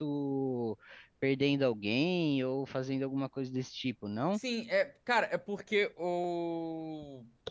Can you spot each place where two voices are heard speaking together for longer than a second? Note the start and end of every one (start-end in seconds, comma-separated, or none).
none